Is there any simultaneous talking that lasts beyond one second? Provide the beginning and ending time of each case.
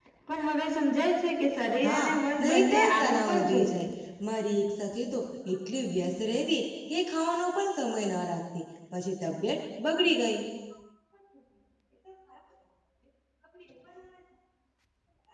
2.4-3.8

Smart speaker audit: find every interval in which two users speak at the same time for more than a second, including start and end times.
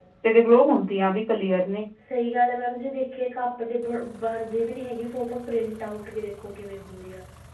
none

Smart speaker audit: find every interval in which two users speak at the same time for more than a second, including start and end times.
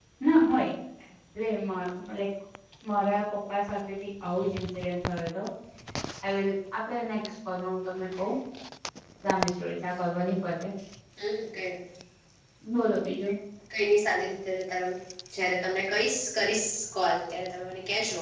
none

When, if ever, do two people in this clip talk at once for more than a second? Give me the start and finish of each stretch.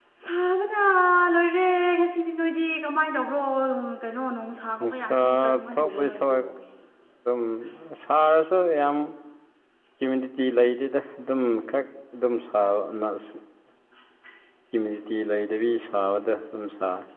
5.0-6.4

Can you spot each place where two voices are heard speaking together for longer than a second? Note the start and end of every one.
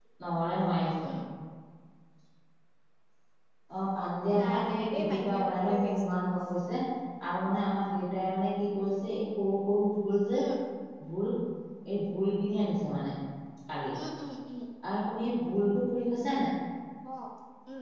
4.4-6.0

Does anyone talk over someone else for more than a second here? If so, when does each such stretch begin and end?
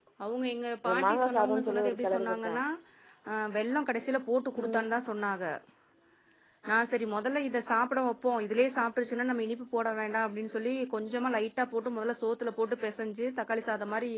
0.8-2.5

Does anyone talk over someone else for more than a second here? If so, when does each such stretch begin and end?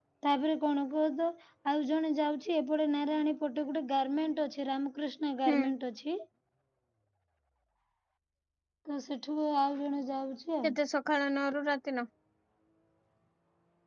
none

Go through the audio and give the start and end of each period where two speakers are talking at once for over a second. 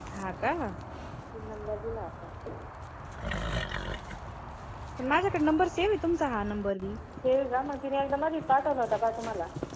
none

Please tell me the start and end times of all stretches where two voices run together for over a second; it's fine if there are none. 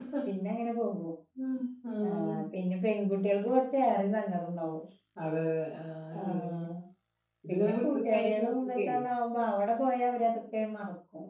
7.5-8.9

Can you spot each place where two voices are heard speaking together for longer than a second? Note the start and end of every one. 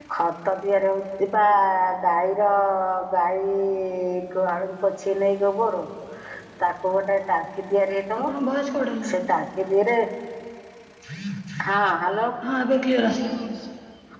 none

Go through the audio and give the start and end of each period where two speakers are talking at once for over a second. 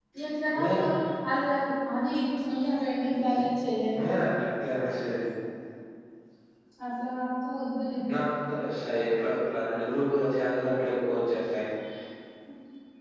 none

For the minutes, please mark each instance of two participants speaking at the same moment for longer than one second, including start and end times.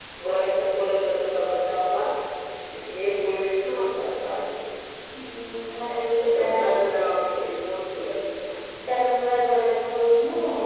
none

